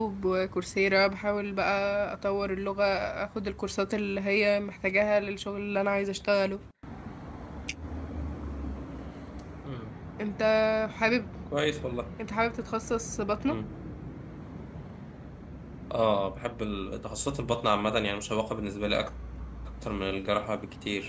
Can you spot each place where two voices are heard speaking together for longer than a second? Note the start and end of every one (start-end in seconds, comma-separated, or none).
none